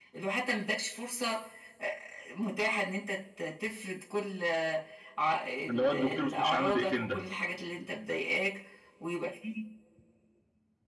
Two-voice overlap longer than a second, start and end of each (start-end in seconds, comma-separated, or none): 5.7-7.3